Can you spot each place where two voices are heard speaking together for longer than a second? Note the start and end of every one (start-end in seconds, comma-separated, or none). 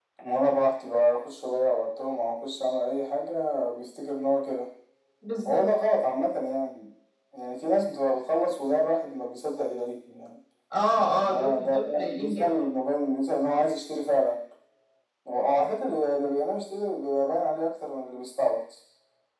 11.2-12.6